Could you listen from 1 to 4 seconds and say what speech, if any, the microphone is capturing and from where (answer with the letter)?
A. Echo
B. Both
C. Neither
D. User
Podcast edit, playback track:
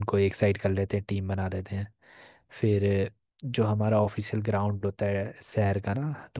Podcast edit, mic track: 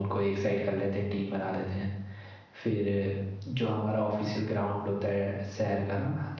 A